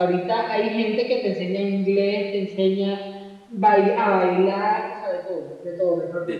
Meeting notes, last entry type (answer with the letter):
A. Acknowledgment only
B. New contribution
B